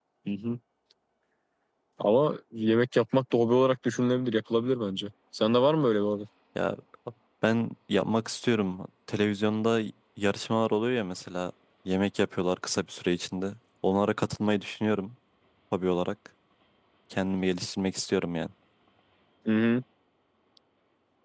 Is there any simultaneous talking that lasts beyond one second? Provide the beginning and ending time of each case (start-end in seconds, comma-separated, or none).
none